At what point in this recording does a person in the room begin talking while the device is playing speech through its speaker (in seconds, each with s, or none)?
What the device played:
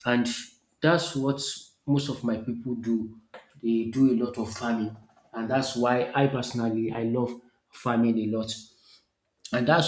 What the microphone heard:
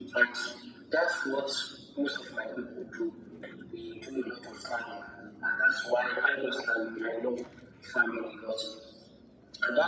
none